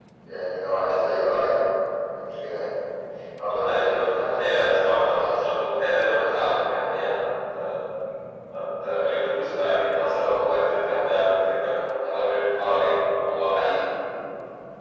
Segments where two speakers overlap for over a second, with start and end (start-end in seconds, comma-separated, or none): 3.5-5.5